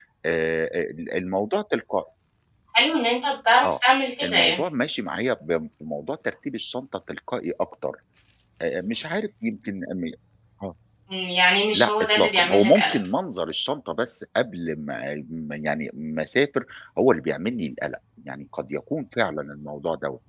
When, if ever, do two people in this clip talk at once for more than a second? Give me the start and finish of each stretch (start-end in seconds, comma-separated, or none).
11.7-13.0